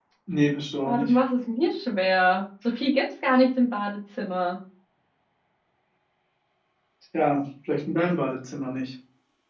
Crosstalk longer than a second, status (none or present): none